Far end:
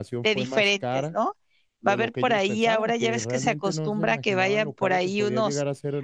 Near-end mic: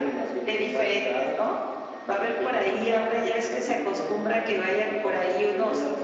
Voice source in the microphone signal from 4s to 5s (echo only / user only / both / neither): echo only